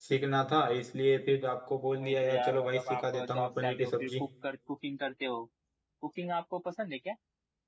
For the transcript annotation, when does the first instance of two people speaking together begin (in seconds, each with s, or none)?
2.0 s